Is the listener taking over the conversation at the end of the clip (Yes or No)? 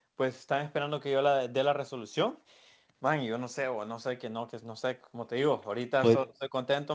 No